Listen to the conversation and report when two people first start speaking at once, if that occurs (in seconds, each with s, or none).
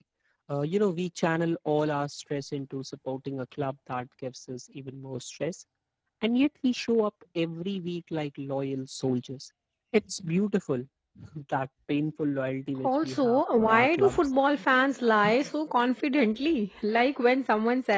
12.8 s